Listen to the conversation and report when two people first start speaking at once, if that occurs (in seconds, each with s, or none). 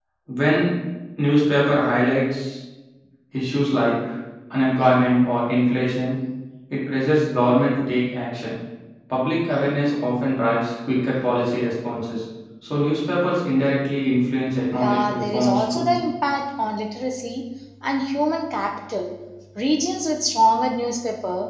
14.8 s